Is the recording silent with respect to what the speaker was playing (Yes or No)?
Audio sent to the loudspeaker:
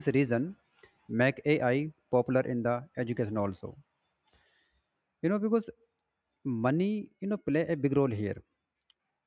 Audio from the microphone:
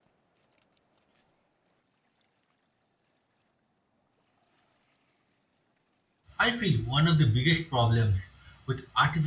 Yes